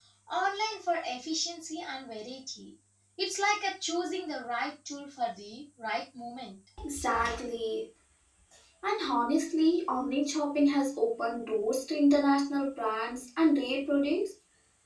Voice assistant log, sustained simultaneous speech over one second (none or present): none